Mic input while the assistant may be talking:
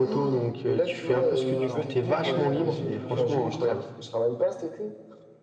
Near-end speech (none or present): present